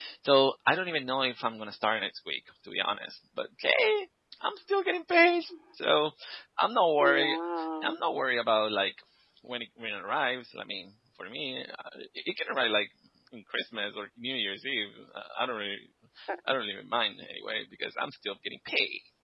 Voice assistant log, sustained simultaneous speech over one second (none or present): none